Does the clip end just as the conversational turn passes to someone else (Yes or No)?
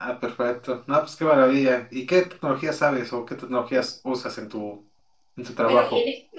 Yes